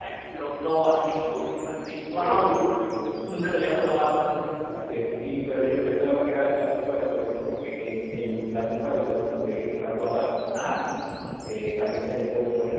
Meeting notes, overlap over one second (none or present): none